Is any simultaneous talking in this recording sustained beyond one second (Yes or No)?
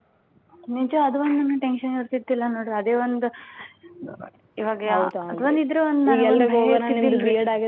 Yes